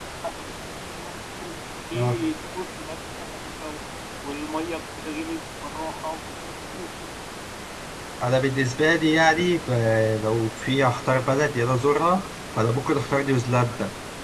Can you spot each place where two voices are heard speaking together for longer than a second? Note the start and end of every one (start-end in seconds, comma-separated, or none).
none